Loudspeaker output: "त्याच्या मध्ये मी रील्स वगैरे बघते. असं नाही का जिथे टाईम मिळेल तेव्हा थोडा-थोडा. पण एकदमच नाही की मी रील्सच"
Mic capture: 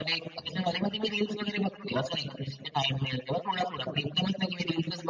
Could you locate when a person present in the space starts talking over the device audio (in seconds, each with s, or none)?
none